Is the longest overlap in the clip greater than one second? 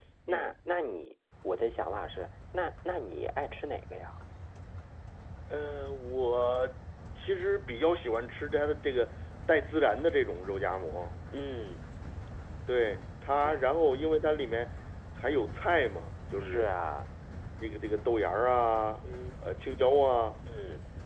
No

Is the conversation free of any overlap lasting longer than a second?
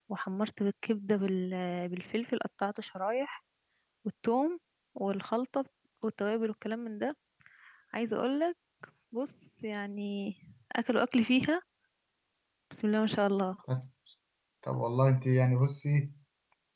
Yes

